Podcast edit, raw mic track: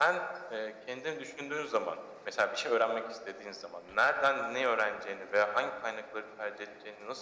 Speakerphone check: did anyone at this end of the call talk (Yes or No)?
No